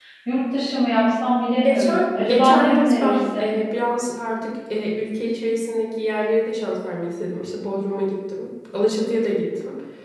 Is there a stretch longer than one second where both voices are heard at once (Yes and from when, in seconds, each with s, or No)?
Yes, from 1.6 s